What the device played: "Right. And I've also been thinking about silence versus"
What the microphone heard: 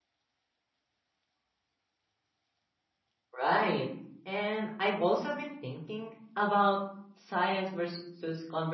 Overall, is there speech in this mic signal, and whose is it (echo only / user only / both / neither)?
echo only